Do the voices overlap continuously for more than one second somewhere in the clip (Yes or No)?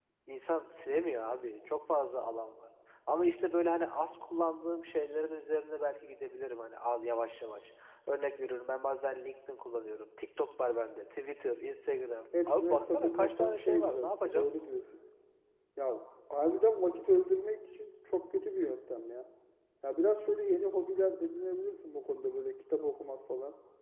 Yes